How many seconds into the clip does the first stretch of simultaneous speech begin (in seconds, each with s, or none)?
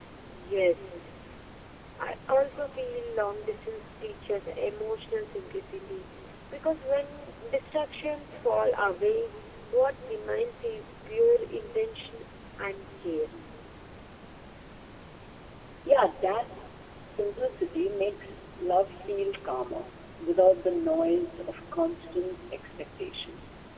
none